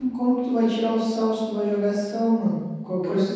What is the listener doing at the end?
taking over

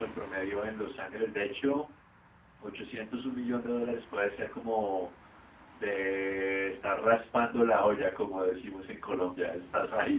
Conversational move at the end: taking over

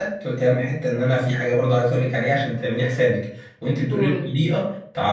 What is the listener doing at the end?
listening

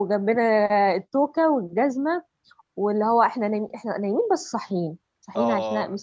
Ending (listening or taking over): listening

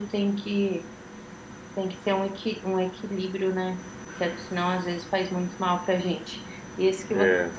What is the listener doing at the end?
listening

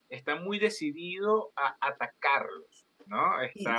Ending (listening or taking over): taking over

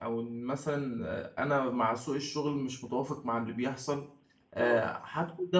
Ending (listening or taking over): listening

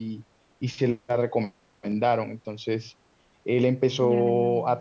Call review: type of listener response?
listening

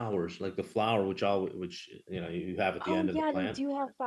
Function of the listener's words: taking over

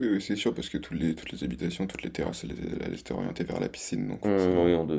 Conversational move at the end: taking over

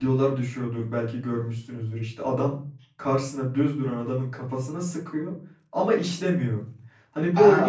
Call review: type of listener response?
taking over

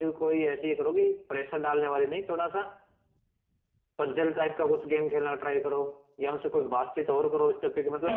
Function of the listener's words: listening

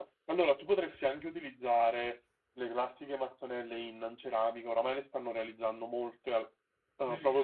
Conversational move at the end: taking over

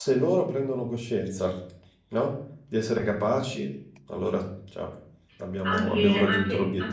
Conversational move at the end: taking over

